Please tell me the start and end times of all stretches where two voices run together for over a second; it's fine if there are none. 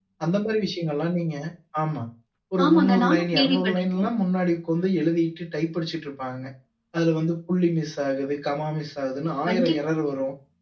2.6-4.1

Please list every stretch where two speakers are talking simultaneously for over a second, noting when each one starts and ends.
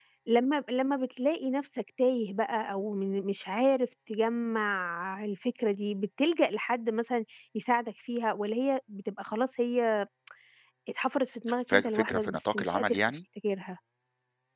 11.7-13.0

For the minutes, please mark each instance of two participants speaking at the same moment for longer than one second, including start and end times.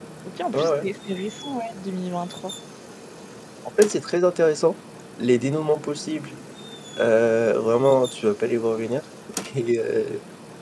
none

